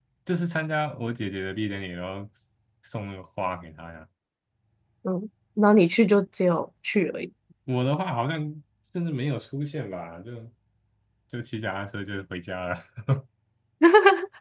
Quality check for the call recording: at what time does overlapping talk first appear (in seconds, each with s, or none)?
none